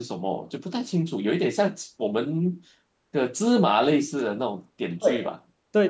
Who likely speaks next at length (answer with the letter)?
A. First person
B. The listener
B